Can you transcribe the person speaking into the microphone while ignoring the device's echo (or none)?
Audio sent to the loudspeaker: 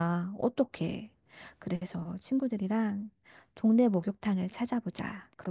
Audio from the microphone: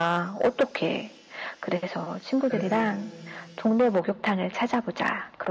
그래서